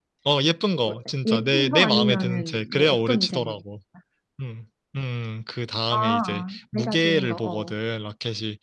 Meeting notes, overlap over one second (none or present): present